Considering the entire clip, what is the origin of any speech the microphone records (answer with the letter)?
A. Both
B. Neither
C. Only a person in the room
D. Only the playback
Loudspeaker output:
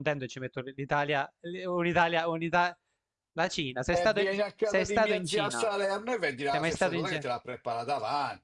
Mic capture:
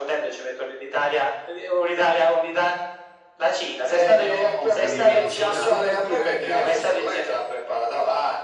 A